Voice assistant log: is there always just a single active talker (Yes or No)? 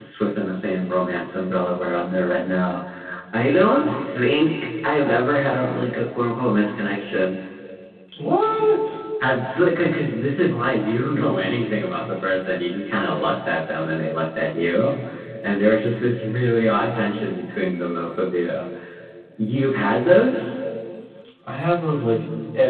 Yes